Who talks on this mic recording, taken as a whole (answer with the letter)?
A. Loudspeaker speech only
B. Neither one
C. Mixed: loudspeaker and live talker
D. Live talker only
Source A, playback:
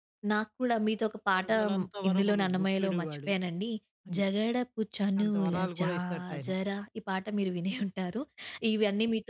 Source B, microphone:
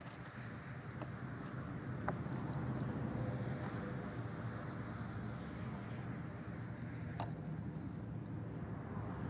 B